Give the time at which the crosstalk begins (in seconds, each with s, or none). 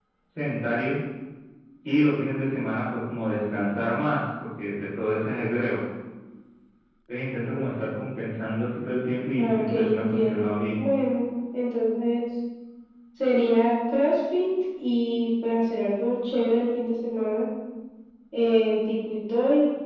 9.4 s